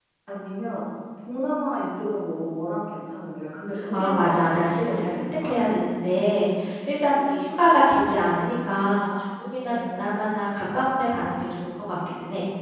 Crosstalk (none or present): present